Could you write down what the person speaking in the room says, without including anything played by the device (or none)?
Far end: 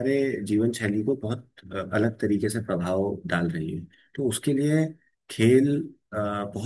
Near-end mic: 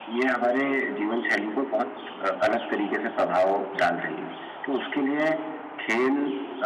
none